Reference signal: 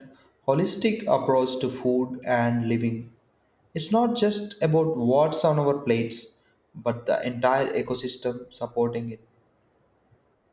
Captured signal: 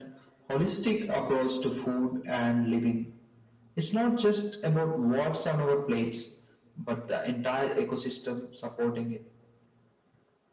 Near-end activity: none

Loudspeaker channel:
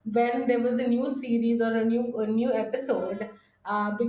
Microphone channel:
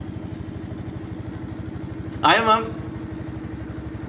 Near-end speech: present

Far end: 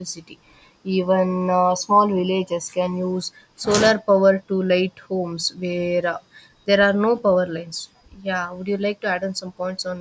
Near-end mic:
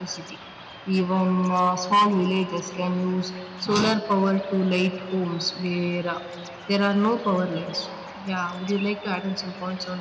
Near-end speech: none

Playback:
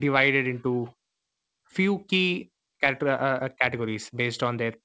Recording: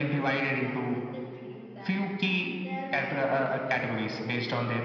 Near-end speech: present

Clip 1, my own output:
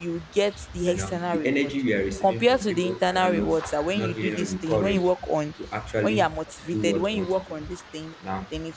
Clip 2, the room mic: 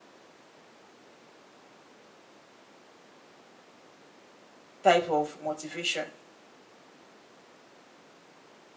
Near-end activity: present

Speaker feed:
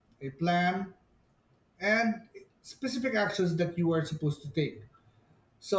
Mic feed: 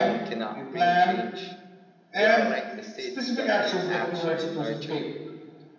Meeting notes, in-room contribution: present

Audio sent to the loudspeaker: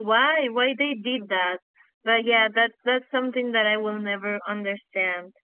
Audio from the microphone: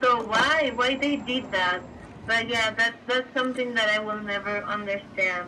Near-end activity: none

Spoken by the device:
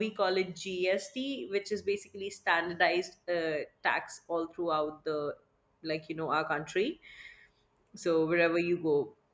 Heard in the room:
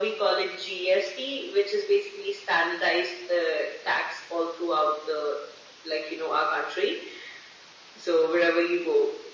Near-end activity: none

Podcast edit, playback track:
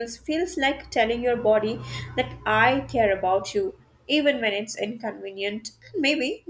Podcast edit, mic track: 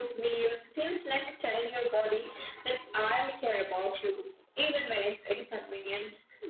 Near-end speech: none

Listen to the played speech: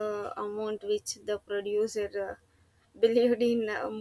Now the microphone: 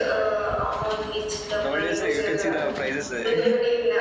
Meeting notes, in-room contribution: present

